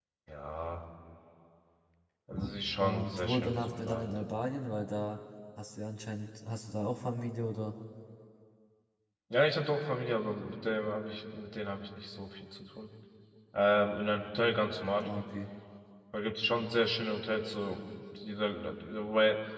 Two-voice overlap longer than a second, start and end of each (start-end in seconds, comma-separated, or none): 2.8-4.1